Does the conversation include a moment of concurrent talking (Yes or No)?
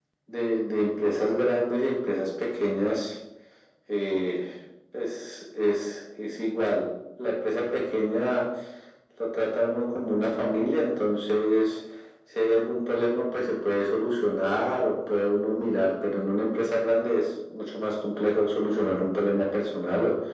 No